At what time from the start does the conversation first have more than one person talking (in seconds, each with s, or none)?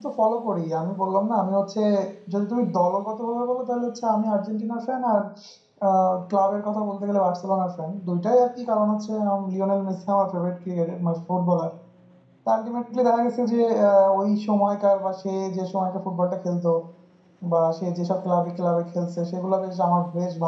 none